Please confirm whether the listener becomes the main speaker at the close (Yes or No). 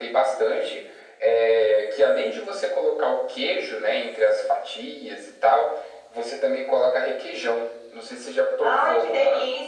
Yes